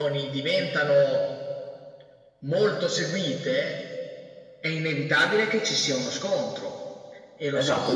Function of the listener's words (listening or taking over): taking over